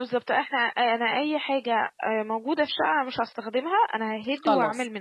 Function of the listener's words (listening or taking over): taking over